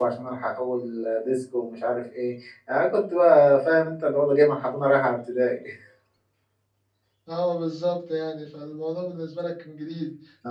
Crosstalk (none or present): none